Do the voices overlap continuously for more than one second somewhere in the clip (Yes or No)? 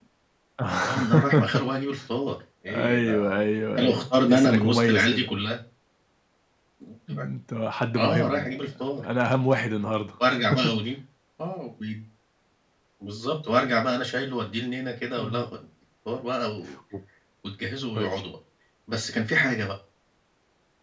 Yes